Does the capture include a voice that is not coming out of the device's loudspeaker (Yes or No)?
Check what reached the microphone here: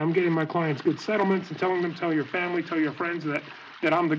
No